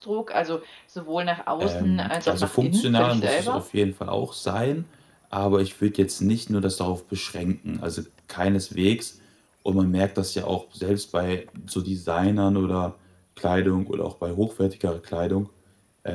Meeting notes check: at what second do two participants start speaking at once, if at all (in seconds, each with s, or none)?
1.6 s